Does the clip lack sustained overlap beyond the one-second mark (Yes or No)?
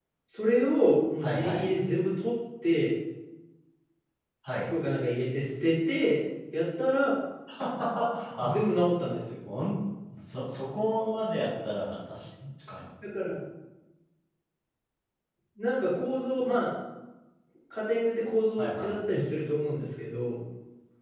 Yes